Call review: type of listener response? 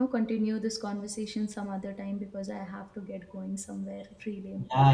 taking over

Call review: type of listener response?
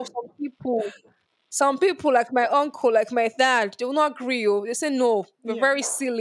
listening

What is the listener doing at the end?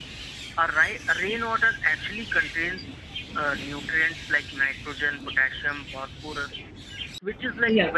listening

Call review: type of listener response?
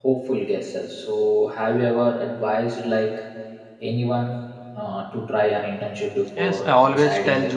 taking over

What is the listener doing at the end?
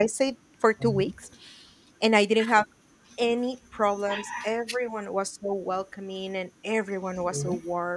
listening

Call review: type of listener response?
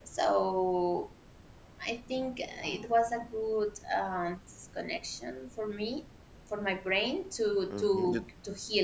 taking over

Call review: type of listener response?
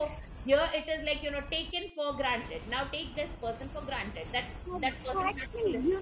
taking over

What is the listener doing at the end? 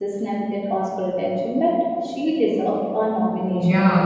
taking over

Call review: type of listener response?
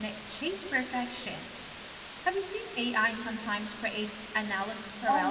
taking over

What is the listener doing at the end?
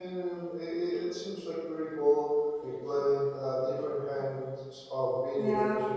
taking over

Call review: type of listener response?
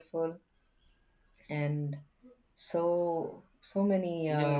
taking over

